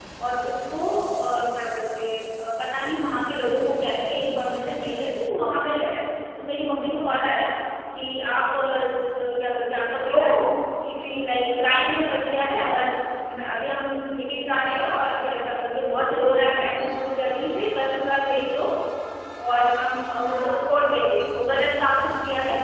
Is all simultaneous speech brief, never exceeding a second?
Yes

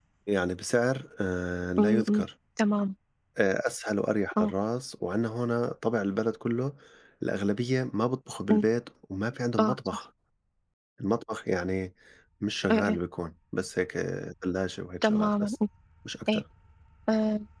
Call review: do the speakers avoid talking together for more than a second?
Yes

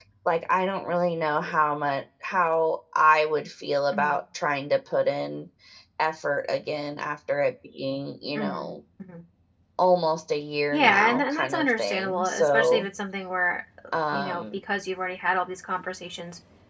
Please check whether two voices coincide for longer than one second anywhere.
Yes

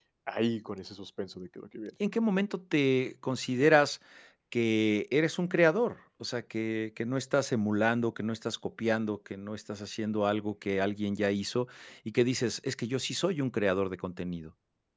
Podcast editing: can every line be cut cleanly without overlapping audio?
Yes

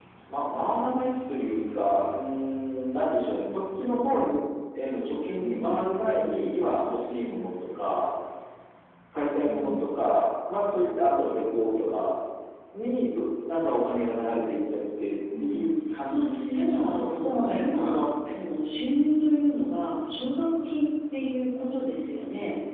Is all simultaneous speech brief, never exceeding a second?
No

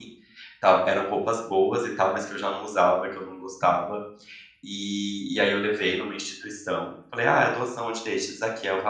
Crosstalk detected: No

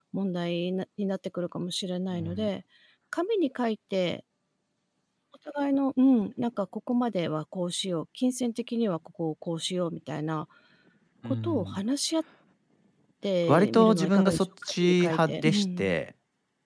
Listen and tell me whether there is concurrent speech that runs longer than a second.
Yes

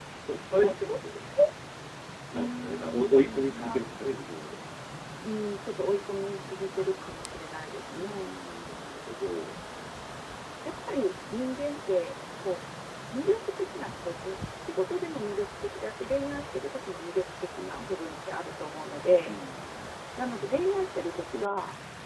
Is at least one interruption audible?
Yes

